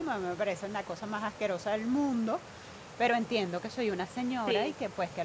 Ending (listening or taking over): listening